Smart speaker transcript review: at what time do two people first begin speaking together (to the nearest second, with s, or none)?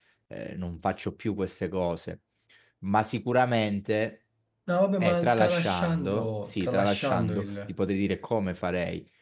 5 s